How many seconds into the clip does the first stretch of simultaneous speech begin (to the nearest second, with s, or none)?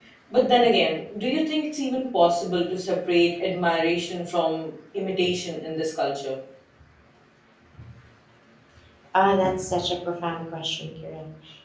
none